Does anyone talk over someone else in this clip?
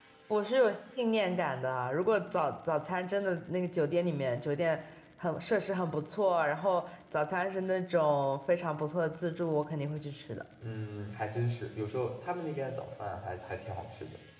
No

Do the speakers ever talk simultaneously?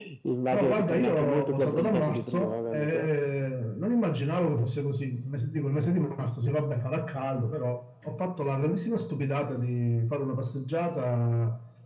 Yes, from 0.5 s

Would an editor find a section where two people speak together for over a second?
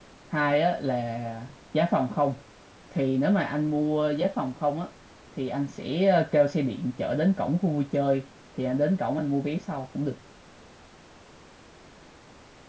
No

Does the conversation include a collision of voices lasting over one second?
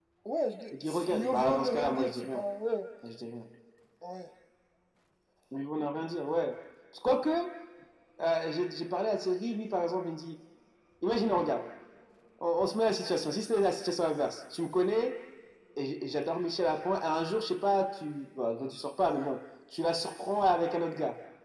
Yes, from 0.9 s

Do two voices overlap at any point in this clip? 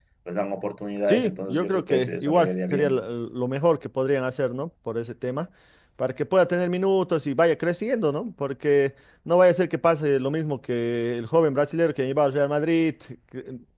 Yes, from 1.1 s

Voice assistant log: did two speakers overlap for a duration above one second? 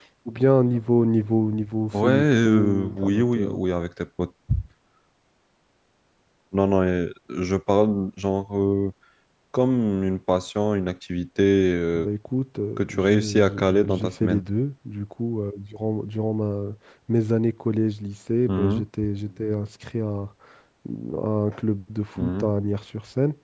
Yes, from 1.9 s

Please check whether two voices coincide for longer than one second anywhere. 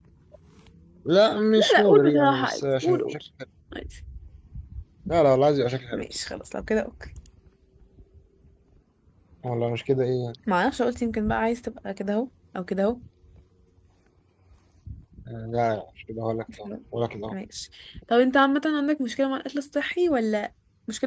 Yes, from 1.6 s

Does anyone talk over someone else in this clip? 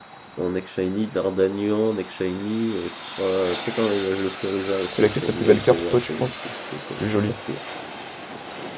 Yes, from 4.9 s

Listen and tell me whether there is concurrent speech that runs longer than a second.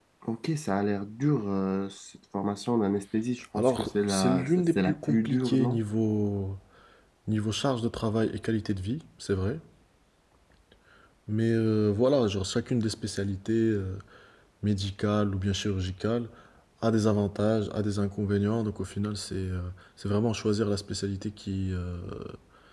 Yes, from 3.5 s

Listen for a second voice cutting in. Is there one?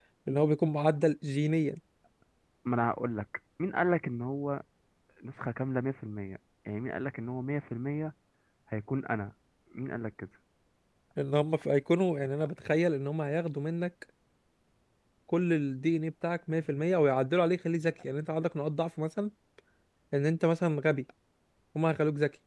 No

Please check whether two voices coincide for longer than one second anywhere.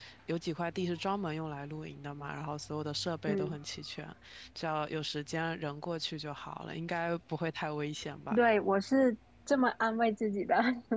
No

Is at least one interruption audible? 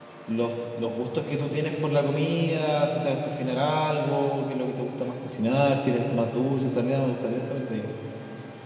No

